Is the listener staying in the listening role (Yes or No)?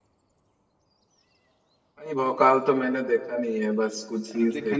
No